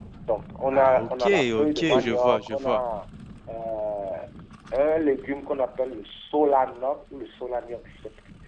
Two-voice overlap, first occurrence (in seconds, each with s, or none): 0.7 s